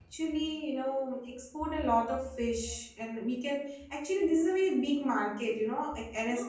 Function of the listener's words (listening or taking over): taking over